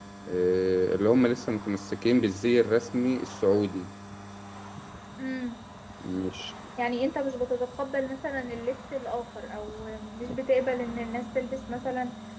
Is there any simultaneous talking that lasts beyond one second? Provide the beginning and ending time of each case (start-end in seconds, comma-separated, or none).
none